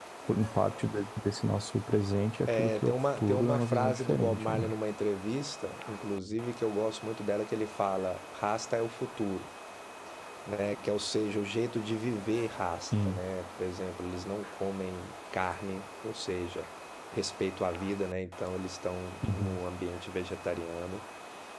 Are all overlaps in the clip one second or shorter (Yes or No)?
No